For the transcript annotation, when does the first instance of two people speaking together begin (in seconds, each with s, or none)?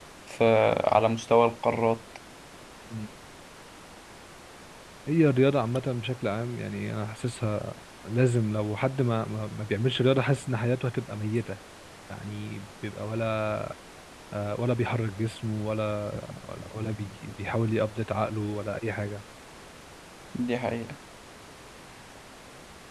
none